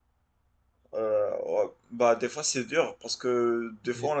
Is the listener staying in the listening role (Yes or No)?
Yes